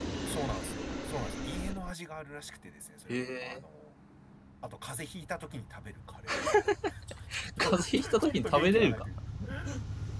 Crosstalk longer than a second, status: present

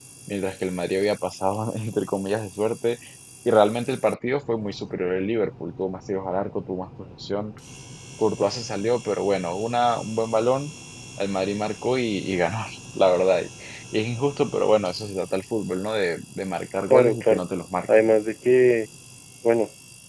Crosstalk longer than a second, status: none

